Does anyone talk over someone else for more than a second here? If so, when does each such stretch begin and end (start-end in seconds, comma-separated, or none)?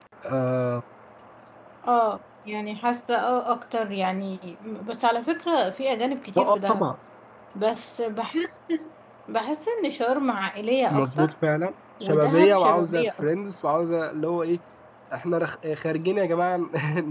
12.0-13.3